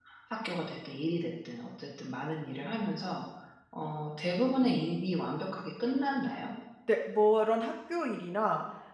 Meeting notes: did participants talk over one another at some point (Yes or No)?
No